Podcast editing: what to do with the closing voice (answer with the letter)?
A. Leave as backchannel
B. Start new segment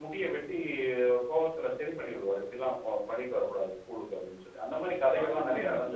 B